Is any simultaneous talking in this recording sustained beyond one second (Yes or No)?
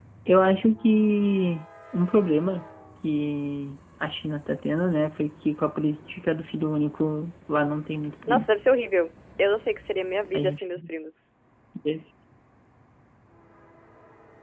No